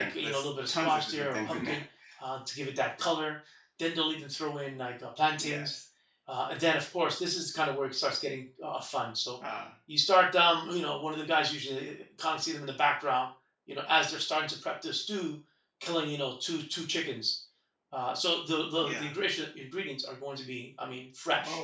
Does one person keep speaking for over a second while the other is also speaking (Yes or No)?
Yes